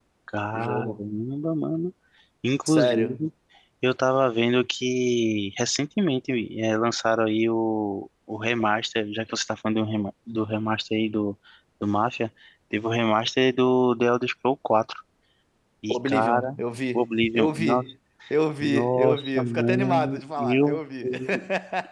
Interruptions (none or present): present